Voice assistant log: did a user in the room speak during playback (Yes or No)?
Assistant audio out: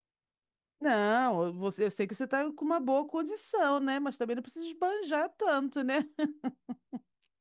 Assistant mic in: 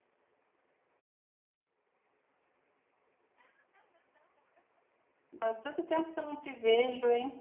Yes